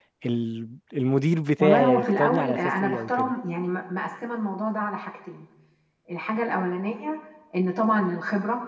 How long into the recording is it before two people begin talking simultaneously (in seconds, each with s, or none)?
1.6 s